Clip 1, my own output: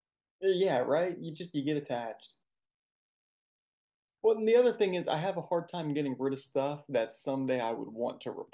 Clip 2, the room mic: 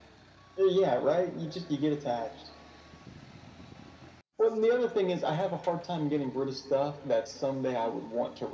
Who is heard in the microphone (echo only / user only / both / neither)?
echo only